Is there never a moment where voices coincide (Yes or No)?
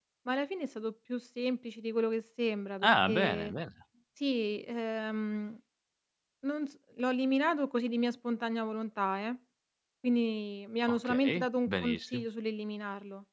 No